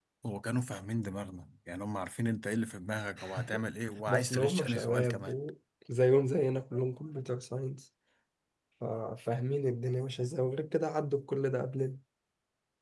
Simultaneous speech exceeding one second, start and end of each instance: 4.1-5.3

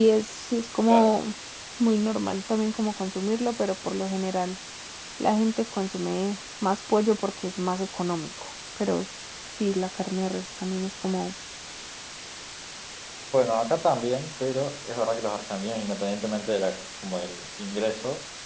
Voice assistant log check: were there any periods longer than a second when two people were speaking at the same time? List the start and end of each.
none

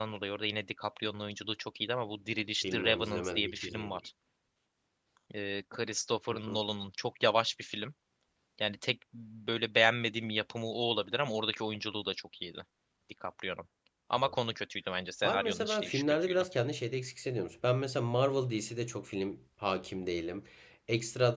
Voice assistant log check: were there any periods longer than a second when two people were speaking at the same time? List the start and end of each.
2.7-4.0, 15.2-16.4

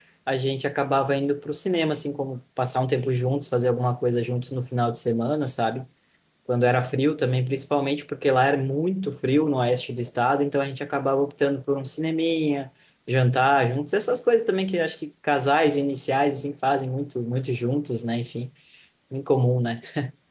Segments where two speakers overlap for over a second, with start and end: none

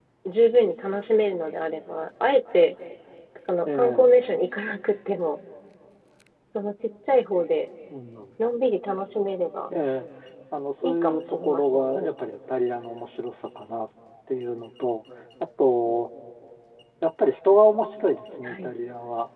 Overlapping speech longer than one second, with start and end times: 10.8-12.1

